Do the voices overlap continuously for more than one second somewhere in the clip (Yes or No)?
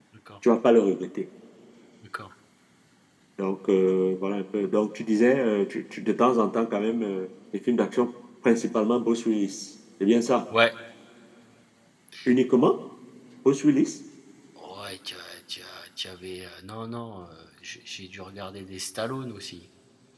No